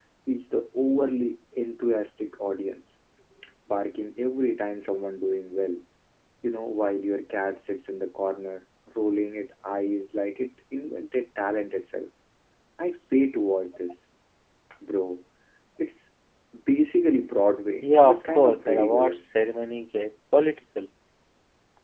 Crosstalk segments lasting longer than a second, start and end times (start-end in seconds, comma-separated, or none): 17.8-19.2